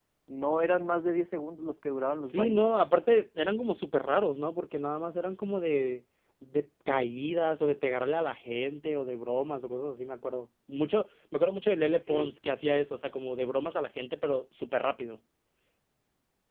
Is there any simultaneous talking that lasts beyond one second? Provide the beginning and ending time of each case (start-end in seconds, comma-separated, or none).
none